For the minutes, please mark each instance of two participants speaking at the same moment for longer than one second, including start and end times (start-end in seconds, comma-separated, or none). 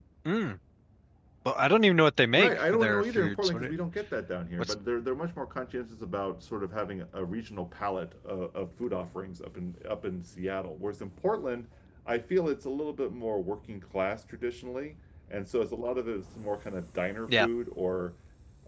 2.3-3.7